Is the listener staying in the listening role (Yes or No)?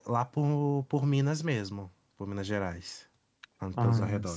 No